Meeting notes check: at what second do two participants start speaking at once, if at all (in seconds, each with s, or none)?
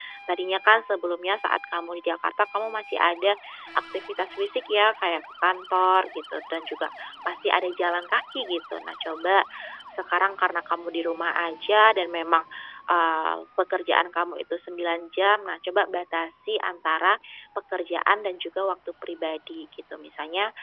none